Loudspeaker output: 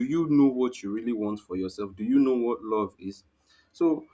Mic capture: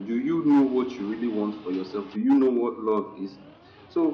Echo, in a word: present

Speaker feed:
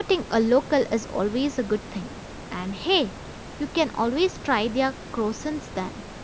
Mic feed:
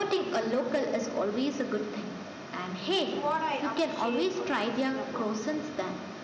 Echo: present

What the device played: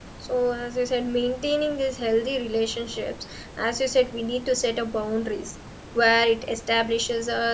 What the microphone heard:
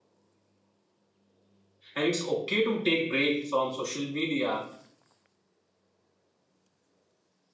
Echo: none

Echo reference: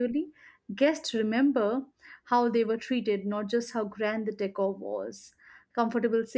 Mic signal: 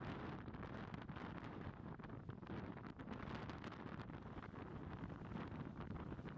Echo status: none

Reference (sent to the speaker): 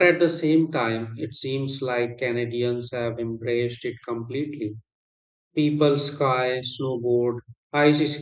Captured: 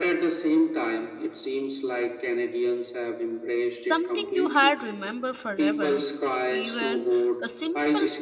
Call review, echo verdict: present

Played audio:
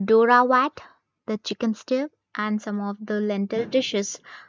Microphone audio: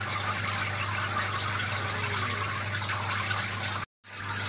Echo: none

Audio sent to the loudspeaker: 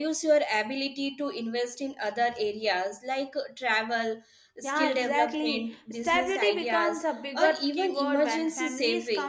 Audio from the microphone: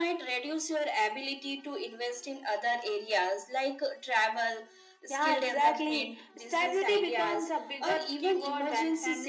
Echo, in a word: present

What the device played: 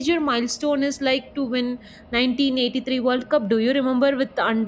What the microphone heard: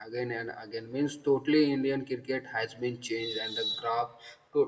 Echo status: none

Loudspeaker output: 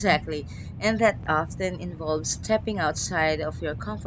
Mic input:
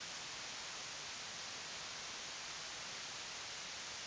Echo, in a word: none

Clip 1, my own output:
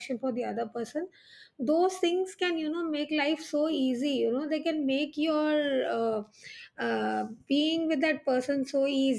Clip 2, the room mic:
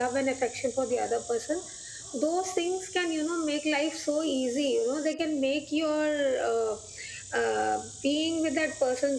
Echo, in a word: present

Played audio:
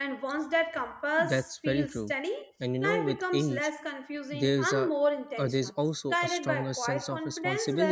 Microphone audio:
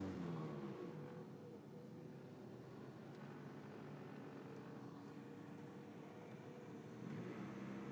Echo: none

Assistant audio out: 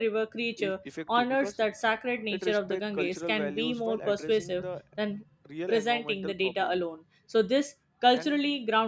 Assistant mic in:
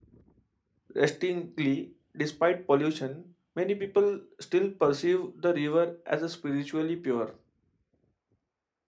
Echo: none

